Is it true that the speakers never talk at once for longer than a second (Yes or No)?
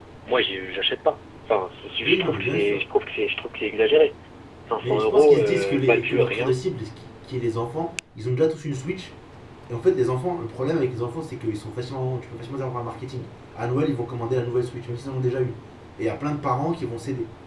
No